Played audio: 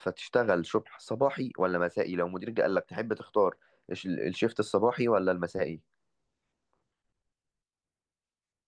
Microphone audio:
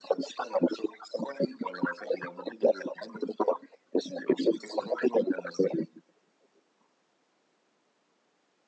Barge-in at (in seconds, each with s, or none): none